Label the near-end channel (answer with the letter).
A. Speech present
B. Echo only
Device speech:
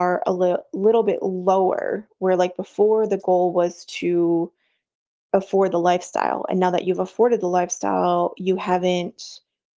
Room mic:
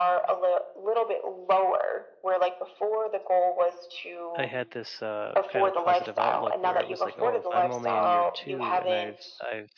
A